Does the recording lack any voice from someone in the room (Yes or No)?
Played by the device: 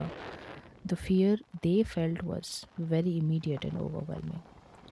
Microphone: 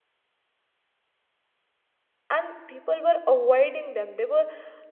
No